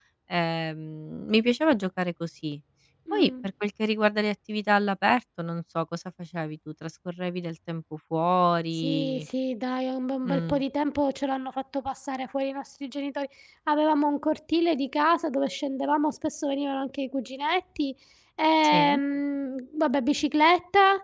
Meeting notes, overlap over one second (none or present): none